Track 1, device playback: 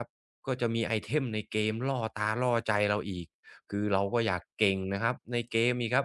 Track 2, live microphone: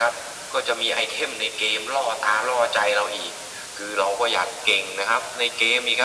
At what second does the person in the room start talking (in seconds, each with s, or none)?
none